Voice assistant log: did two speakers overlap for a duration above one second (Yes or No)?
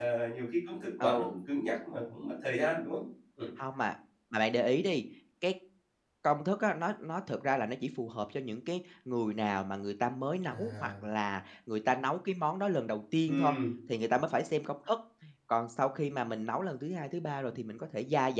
No